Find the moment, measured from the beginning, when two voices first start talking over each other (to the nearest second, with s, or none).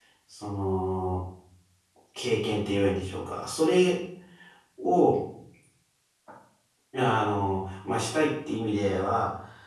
none